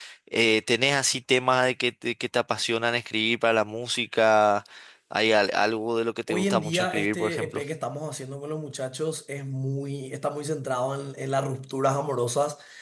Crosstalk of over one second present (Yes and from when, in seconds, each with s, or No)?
Yes, from 6.3 s